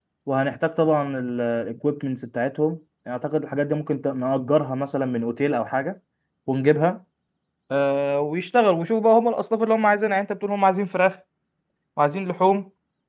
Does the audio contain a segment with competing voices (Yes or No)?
No